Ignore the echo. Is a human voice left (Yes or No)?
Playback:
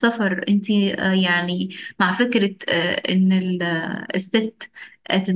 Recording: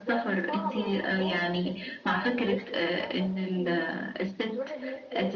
Yes